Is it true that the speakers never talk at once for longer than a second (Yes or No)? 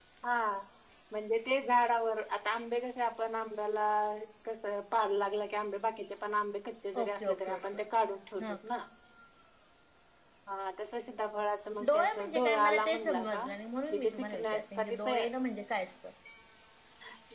No